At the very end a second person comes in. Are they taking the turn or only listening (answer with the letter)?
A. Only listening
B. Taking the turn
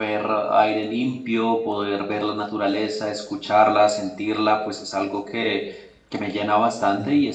A